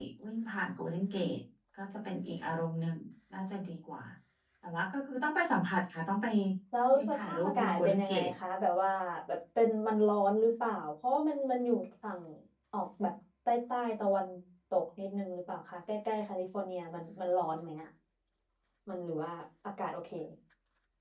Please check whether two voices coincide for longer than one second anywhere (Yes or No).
Yes